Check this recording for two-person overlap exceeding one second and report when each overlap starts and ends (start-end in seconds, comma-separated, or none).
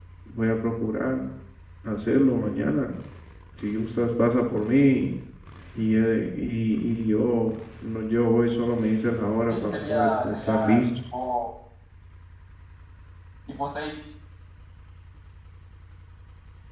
9.5-10.8